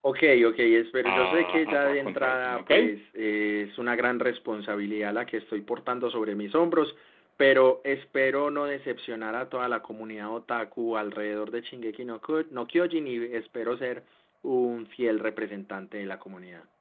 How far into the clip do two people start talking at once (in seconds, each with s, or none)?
1.1 s